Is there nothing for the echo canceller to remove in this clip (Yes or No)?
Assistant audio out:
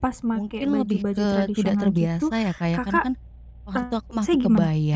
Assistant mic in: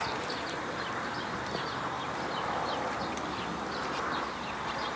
Yes